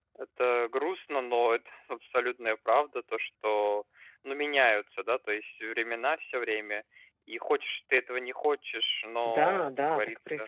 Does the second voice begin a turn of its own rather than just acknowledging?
Yes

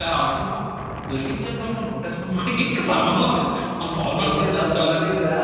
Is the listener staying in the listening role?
No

